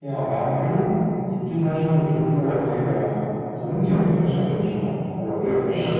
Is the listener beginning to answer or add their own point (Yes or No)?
No